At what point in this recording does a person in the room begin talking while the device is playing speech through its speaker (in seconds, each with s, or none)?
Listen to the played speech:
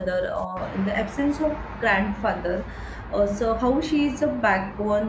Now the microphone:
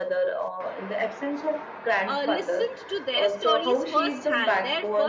2.1 s